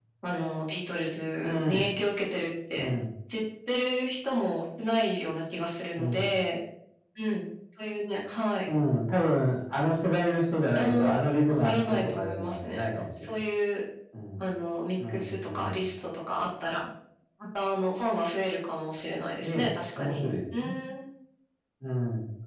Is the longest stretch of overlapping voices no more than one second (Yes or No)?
No